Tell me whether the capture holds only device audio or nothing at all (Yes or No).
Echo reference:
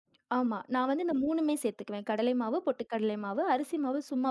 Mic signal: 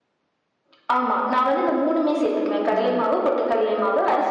No